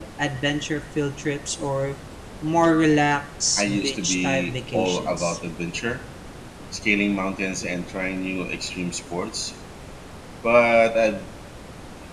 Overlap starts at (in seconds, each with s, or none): 3.6 s